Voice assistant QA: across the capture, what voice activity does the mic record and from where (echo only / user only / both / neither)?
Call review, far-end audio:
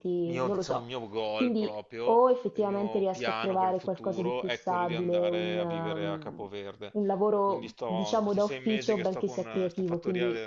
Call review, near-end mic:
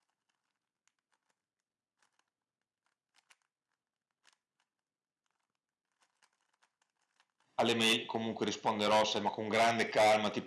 user only